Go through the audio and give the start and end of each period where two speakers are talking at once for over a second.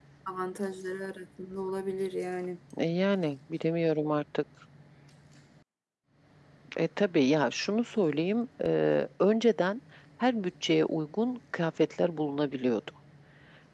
none

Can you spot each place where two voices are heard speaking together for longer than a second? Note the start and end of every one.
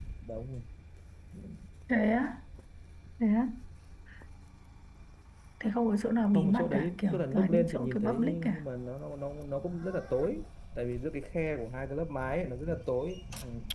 6.3-8.7

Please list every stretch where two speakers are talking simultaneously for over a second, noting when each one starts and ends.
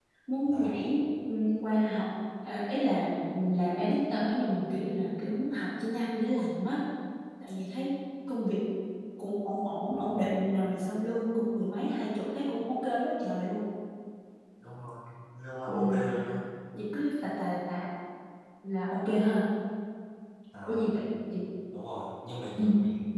none

